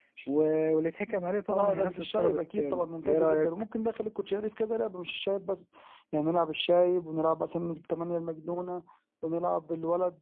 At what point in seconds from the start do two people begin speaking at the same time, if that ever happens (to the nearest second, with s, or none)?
1 s